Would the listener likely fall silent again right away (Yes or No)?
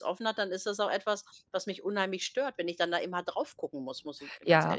No